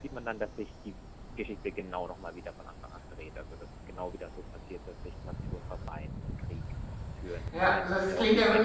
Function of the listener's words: taking over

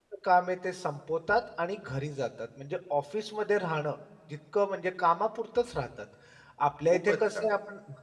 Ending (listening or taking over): listening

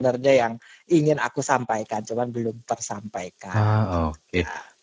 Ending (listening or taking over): taking over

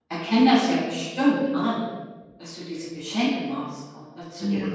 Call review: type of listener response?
taking over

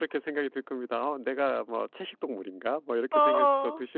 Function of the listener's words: listening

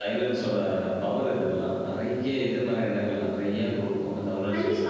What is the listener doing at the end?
taking over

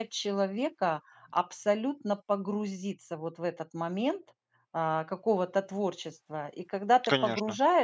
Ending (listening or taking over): listening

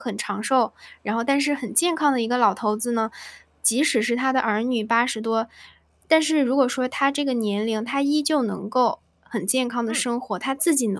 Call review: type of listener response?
listening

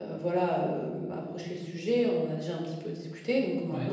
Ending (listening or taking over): listening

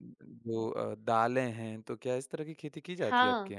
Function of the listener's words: taking over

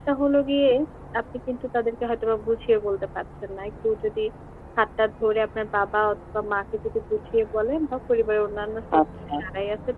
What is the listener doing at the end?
listening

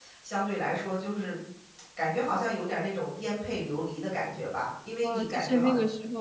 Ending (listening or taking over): taking over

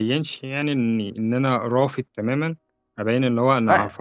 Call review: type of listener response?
taking over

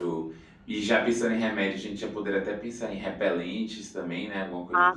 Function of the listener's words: taking over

